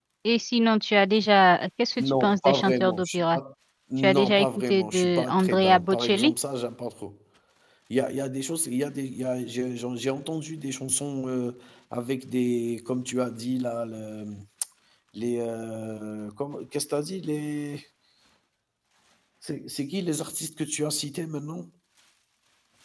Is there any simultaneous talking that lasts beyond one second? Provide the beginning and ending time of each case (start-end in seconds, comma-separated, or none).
2.0-3.4, 4.0-6.3